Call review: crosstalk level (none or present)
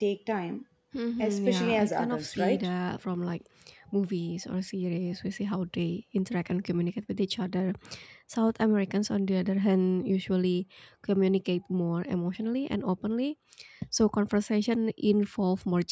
present